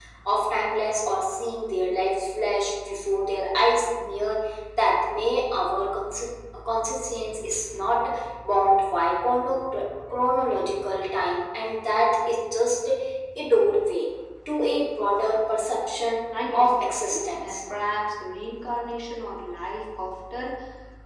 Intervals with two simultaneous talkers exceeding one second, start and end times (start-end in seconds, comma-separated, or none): 16.3-17.6